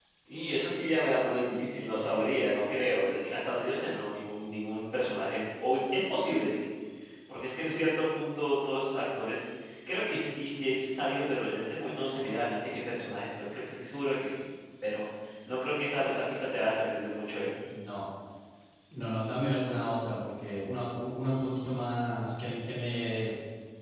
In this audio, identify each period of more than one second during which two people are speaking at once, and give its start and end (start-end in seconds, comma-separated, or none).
none